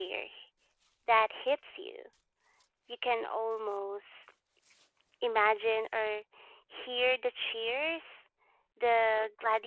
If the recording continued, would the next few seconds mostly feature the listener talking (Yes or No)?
No